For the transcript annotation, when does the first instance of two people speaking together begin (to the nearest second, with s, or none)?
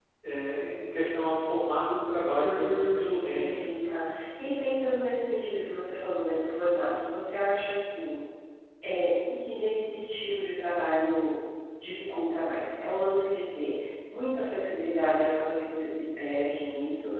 2 s